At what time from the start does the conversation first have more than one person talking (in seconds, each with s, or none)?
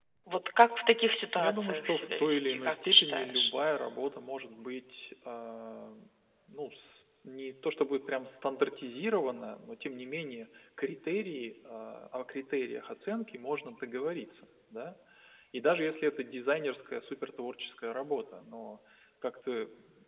1.4 s